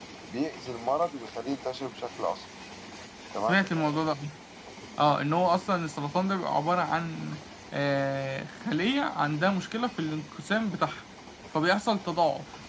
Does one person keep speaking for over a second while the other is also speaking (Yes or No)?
No